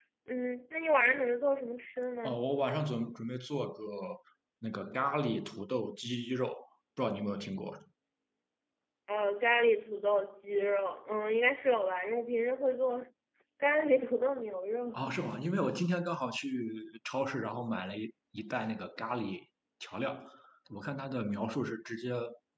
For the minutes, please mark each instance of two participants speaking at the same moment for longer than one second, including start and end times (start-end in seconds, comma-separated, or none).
none